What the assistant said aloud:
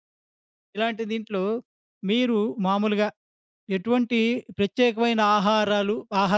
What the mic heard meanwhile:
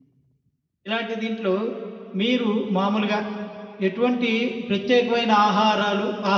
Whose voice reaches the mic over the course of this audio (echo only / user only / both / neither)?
echo only